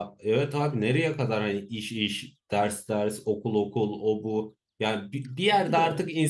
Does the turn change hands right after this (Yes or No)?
No